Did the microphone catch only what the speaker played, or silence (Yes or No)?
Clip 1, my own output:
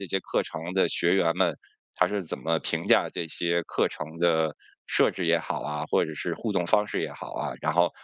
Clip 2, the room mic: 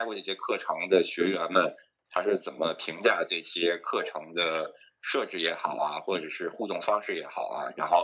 Yes